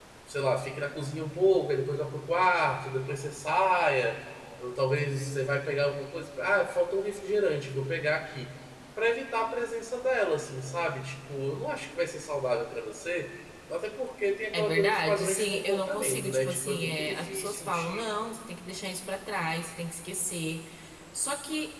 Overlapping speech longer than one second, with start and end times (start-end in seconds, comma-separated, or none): 14.5-18.1